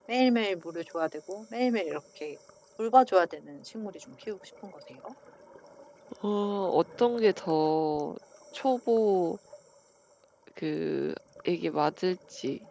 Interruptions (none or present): none